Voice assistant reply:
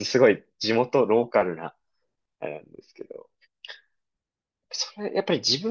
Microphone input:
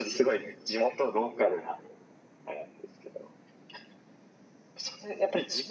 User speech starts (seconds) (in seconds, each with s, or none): none